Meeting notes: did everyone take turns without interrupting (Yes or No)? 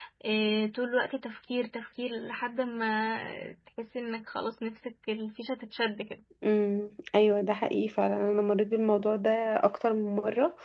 Yes